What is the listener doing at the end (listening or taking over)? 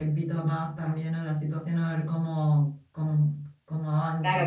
taking over